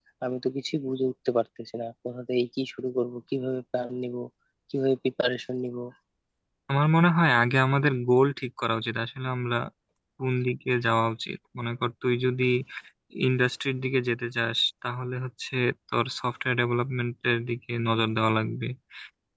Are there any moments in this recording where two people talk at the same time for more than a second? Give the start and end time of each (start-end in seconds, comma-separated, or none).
none